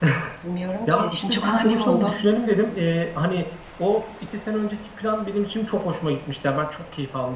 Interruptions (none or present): present